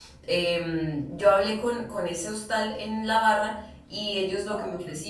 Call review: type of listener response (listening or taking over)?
listening